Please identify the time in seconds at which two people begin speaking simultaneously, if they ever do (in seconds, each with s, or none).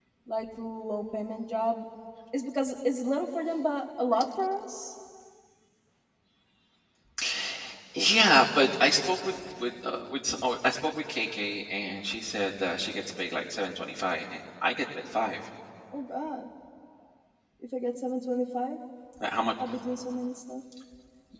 none